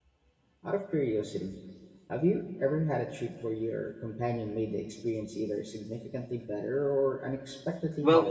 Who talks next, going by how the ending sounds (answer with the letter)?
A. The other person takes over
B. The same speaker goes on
A